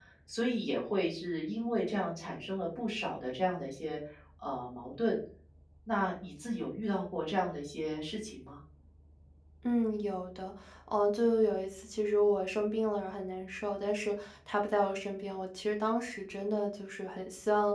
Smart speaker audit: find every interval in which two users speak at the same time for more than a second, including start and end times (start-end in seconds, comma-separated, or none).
none